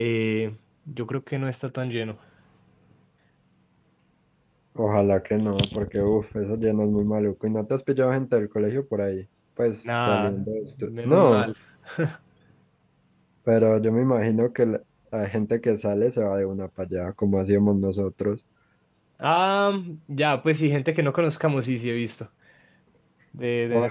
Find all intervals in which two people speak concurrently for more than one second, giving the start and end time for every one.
10.1-11.5

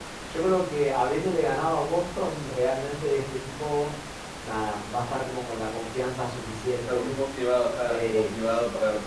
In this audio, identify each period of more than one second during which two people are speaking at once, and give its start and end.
none

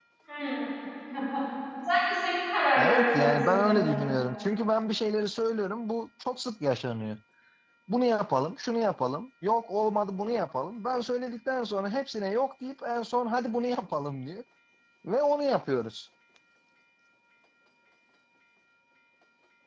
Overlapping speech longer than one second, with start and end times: 2.8-4.0

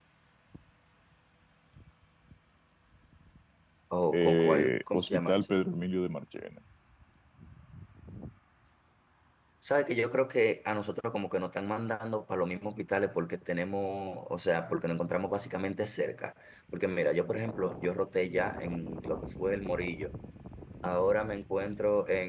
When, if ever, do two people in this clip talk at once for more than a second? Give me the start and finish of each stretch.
4.1-5.6

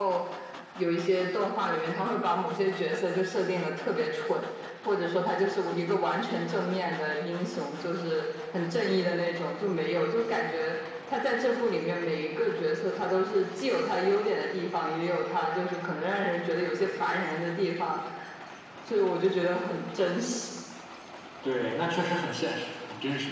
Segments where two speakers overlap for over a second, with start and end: none

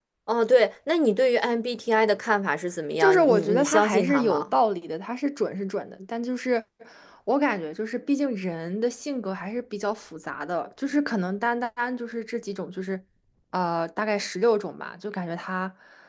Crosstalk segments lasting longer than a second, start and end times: 3.0-4.4

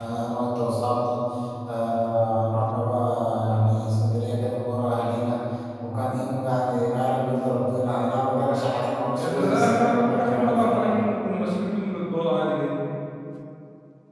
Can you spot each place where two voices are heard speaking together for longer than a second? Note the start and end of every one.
9.3-11.0

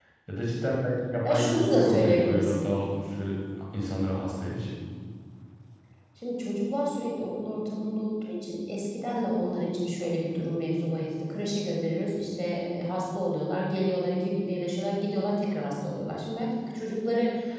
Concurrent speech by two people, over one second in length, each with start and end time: 1.2-2.5

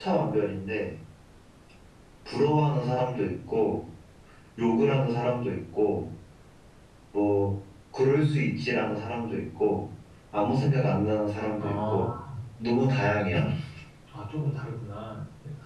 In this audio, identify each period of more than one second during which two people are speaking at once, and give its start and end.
none

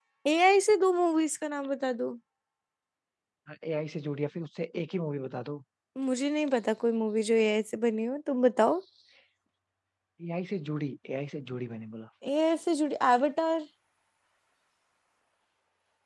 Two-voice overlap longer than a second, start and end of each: none

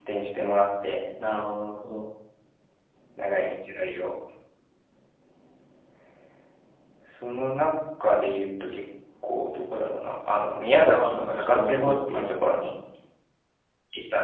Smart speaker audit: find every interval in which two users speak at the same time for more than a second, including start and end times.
10.8-12.4

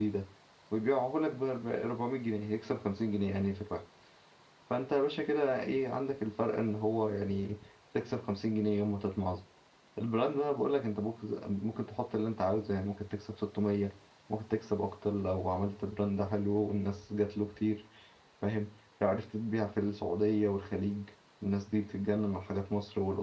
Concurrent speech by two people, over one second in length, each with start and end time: none

